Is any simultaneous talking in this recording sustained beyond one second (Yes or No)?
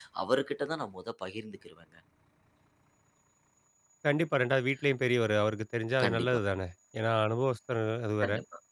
No